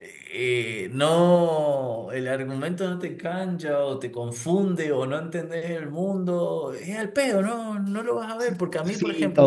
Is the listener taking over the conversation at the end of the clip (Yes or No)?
Yes